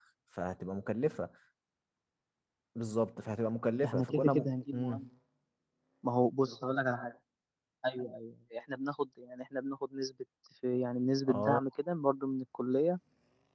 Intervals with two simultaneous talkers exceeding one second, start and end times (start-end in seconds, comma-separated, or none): 3.9-5.0